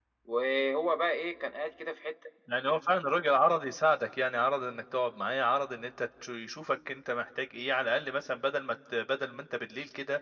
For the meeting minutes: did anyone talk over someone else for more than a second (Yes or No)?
No